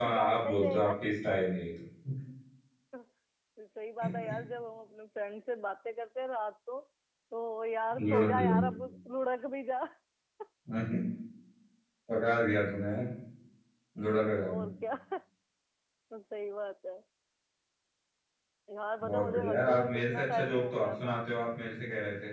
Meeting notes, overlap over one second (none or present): present